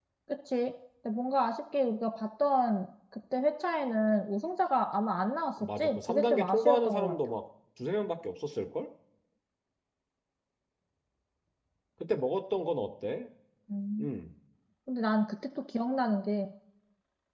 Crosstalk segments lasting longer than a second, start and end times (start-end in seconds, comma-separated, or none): 5.8-7.1